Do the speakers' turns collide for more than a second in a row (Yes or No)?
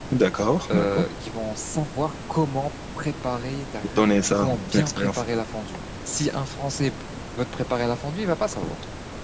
Yes